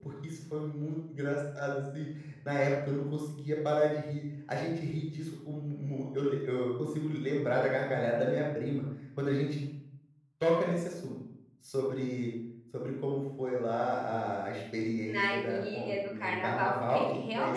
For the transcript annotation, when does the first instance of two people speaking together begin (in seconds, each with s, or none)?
15.1 s